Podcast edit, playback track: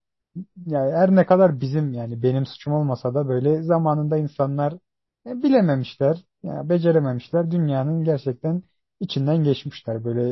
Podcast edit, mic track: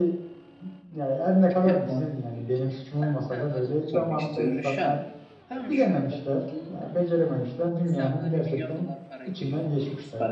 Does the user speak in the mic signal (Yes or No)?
Yes